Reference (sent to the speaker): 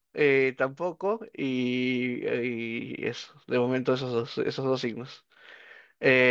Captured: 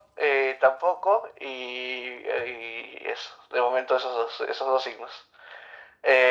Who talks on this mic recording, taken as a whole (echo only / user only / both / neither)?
echo only